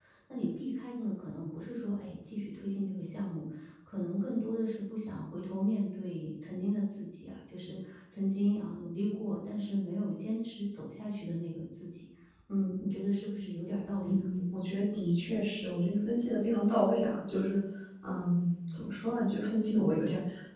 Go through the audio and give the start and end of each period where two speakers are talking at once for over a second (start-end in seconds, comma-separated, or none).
none